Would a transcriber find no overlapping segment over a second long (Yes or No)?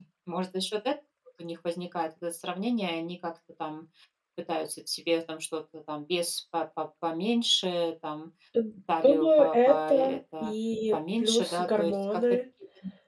No